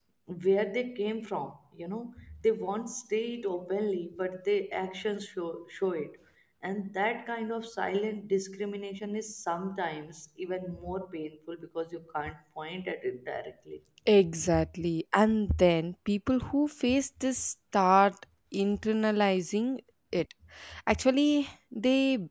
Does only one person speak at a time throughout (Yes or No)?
Yes